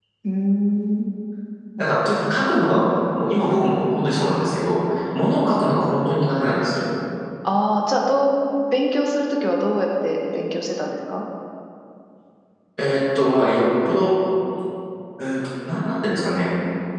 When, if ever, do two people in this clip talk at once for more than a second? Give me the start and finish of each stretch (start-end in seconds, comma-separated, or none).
none